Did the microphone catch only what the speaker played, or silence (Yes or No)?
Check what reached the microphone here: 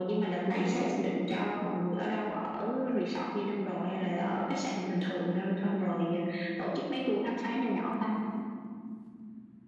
Yes